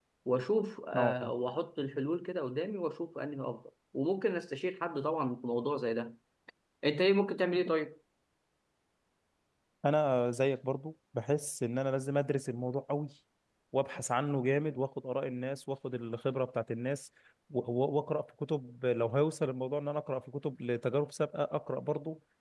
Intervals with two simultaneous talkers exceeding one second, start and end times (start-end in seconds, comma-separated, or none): none